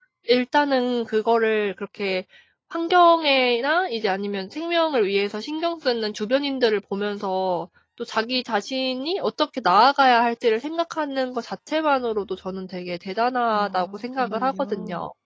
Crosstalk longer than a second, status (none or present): present